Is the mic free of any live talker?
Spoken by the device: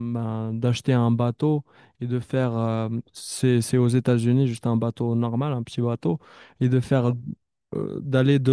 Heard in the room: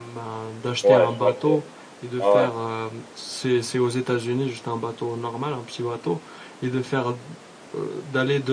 No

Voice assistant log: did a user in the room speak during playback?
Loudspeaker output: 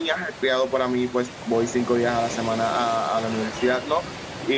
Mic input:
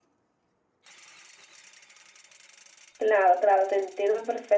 Yes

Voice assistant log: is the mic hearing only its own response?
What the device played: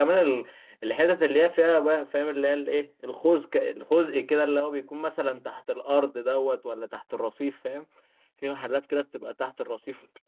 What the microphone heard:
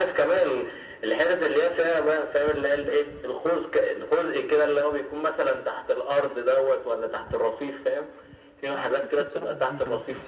No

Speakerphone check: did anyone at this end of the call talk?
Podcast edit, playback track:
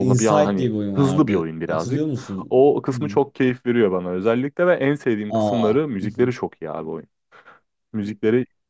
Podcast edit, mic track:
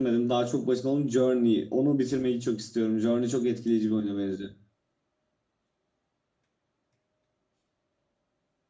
Yes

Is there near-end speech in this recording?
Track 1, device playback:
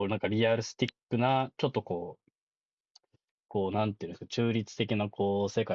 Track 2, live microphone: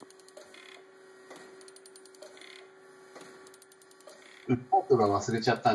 Yes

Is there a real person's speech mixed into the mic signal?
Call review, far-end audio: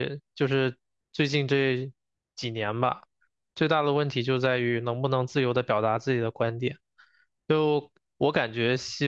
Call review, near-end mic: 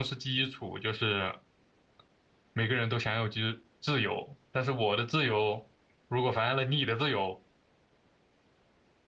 Yes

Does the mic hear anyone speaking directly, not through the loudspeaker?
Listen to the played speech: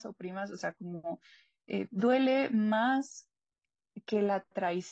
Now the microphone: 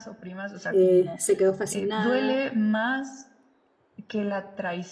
Yes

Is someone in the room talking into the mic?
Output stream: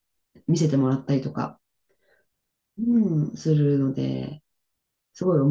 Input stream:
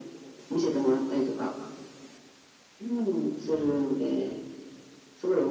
Yes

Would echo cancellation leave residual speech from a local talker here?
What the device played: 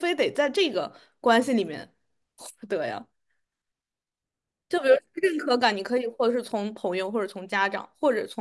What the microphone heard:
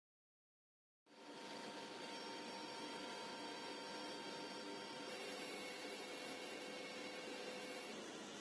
No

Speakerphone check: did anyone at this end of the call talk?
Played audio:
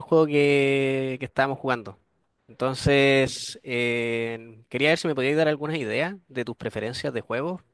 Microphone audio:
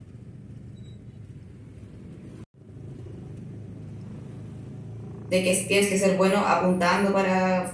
Yes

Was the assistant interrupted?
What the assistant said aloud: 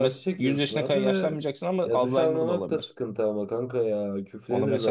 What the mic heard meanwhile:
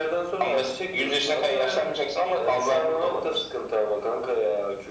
No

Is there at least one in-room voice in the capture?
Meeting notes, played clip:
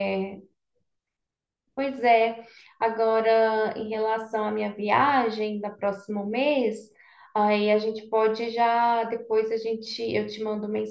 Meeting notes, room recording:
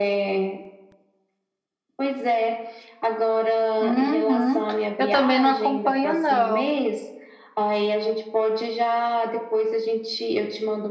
Yes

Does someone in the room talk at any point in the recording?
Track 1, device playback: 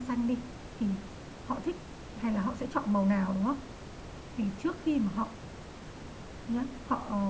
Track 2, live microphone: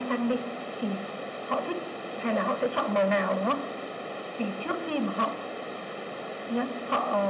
No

